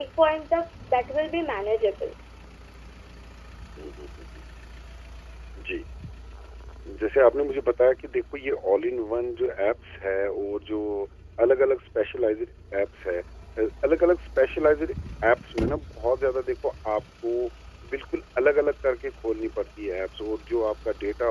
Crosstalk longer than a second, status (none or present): none